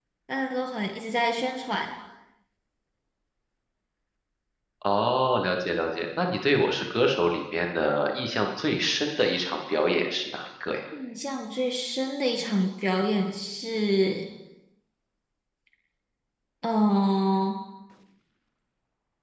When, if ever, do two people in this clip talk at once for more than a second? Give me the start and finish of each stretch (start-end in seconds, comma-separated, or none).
none